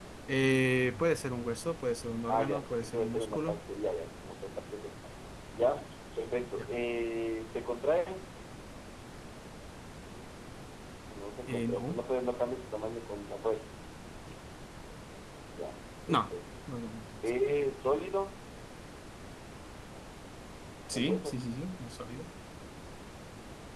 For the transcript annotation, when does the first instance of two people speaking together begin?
2.3 s

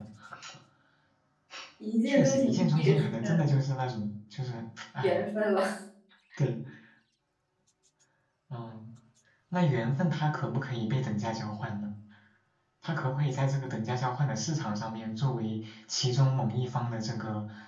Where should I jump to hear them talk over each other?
2.1 s

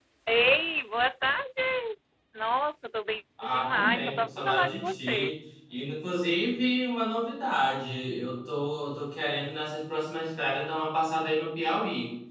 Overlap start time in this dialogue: 3.4 s

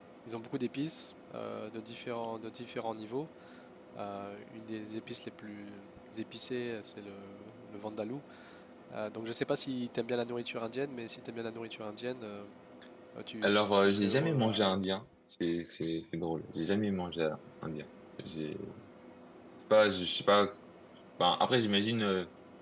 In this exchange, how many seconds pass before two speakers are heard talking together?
13.4 s

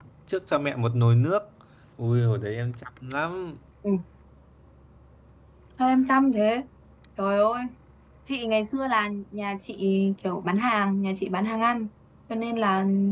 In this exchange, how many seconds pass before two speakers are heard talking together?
none

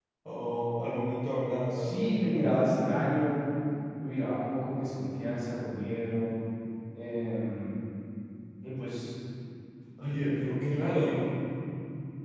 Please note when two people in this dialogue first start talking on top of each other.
1.7 s

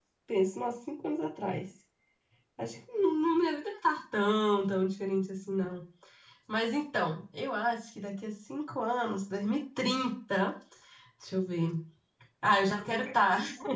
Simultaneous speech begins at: none

